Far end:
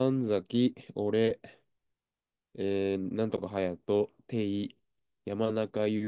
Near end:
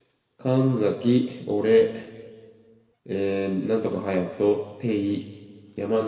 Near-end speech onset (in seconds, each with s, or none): none